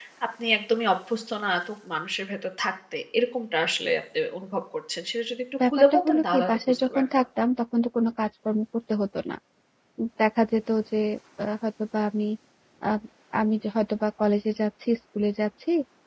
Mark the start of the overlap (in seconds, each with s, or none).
5.6 s